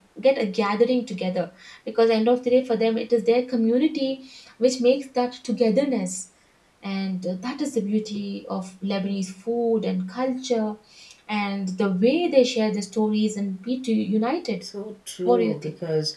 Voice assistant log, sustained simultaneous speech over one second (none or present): none